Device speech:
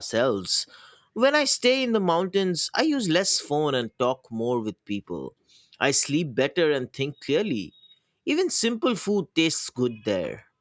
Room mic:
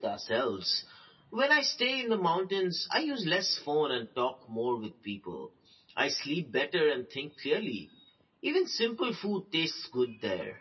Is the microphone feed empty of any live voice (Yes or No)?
Yes